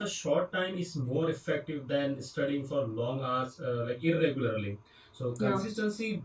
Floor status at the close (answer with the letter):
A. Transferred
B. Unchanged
B